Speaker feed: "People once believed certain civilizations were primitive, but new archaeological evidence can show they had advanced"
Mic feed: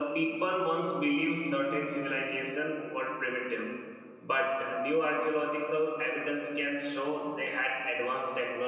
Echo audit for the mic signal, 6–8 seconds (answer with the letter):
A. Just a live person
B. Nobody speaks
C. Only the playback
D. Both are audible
C